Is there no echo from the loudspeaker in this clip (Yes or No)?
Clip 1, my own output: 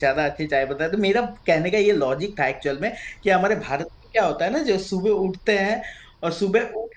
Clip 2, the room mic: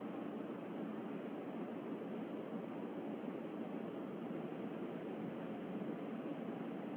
Yes